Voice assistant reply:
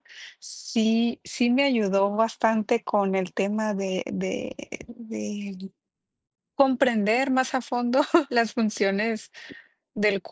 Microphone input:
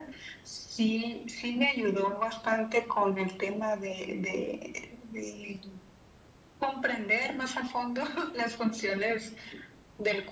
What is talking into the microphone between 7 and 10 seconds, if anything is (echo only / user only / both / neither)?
echo only